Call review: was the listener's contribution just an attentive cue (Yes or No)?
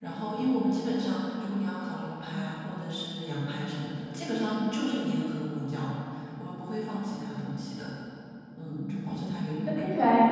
No